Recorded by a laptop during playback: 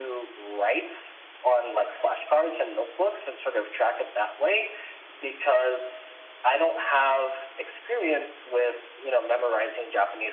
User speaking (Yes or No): No